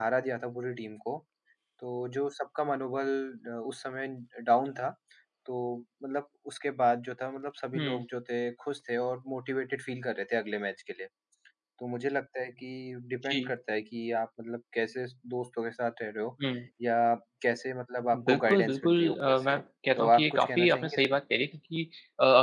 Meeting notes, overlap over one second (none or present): present